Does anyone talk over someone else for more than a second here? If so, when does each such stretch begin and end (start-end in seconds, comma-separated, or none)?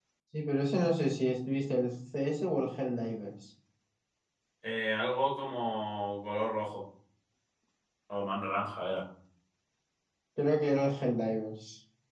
none